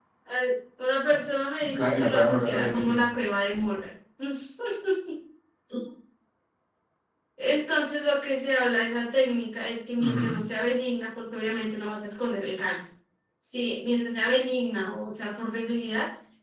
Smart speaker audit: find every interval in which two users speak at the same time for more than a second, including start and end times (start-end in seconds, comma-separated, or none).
1.6-3.0